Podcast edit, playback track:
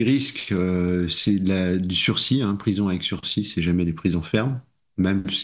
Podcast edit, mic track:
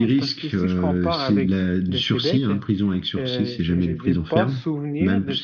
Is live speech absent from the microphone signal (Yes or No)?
No